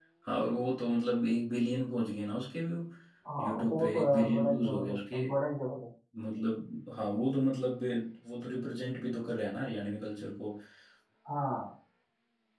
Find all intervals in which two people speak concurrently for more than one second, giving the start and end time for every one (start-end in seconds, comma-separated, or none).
3.4-5.2